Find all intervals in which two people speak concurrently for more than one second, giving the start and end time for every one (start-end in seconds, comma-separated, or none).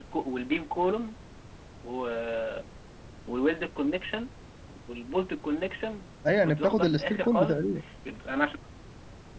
6.3-7.6